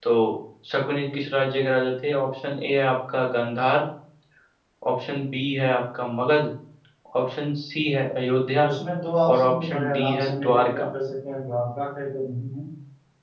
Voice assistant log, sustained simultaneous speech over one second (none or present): present